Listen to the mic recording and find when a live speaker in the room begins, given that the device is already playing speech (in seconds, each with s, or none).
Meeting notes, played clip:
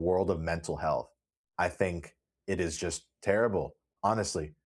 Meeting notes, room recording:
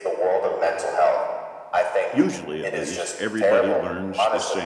2.1 s